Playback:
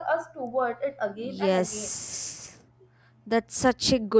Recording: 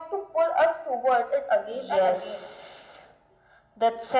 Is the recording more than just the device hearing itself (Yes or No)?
No